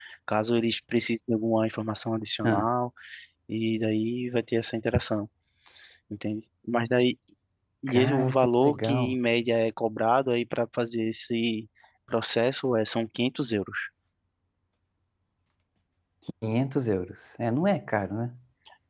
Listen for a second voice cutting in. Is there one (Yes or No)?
Yes